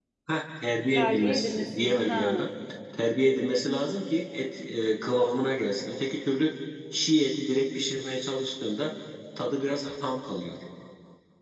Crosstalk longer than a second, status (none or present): present